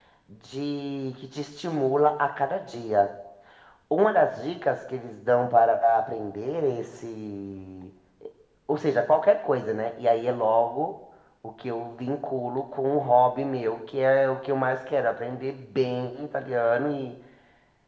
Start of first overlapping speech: none

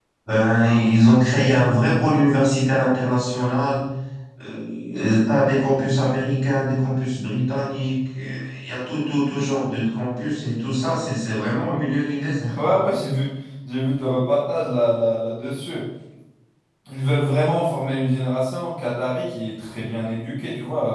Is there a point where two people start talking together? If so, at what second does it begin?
none

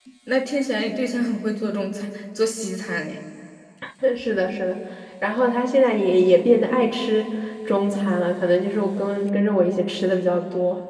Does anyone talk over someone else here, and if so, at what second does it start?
none

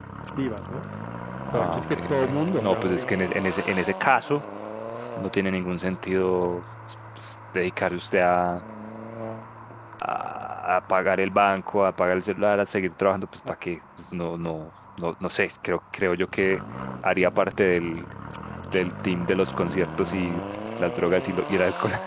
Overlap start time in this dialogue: 2 s

